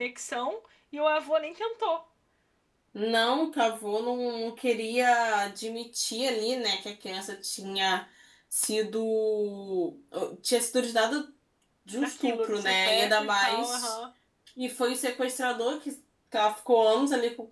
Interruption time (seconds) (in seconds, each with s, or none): 11.9 s